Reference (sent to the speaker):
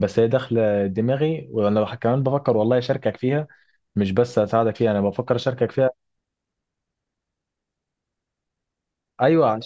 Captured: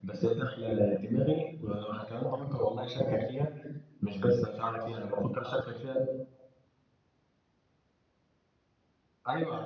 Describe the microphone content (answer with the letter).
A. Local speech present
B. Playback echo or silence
B